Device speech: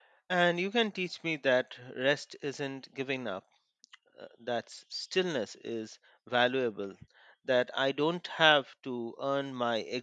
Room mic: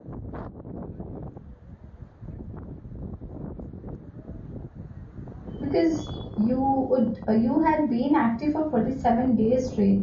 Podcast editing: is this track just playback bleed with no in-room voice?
No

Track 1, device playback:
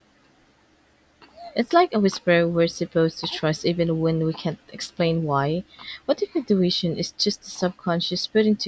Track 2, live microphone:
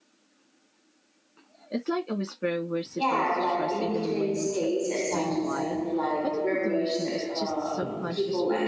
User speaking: Yes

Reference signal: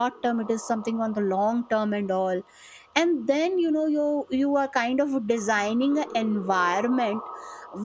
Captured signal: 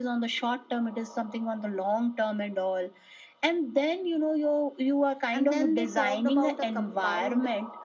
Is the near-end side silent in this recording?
No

